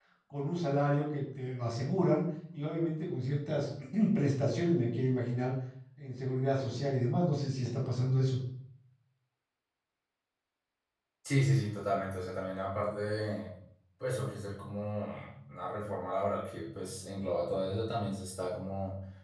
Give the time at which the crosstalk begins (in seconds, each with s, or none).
none